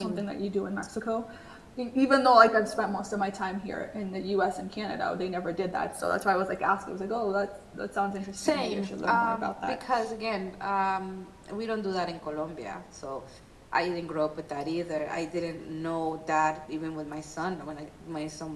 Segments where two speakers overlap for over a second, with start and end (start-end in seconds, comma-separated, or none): 8.4-9.8